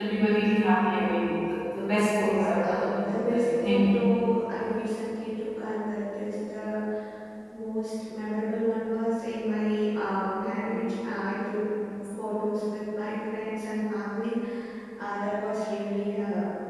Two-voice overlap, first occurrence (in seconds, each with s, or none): 2.2 s